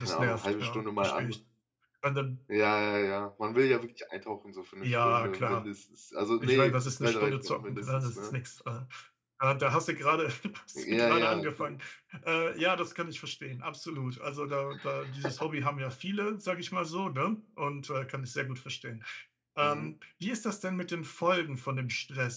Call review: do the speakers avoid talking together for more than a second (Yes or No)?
No